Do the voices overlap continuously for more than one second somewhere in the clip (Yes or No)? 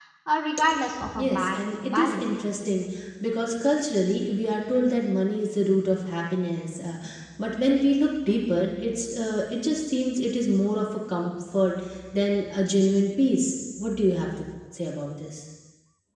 Yes